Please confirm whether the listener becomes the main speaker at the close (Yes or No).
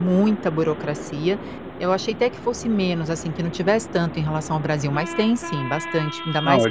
Yes